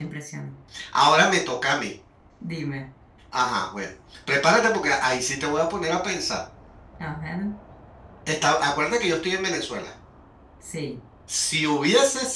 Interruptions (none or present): none